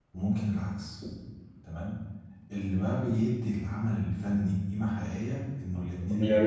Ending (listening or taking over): taking over